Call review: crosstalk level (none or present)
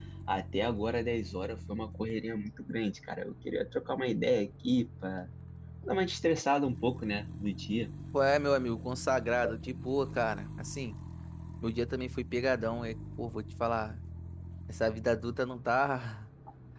none